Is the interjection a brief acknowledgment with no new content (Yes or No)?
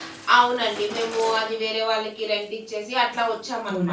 No